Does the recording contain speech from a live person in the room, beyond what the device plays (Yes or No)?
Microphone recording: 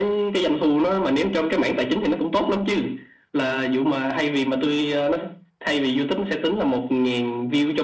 No